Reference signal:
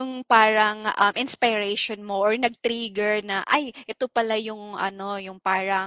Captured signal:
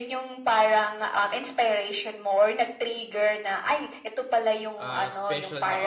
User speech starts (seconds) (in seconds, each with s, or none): 4.7 s